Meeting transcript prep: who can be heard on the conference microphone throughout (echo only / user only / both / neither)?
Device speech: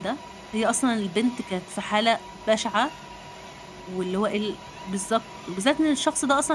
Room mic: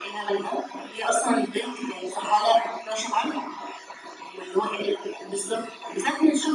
echo only